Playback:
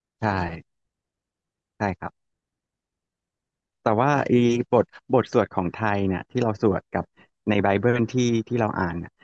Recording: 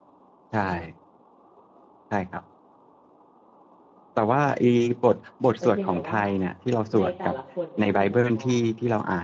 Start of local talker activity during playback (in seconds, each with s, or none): 5.6 s